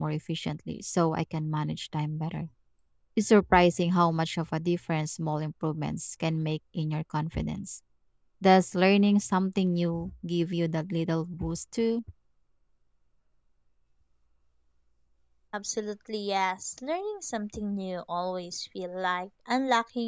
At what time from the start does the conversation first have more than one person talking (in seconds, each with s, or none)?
none